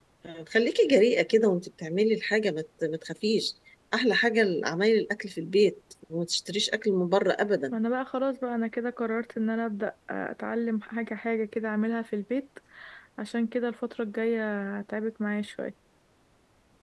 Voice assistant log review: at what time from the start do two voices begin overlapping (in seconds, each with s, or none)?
none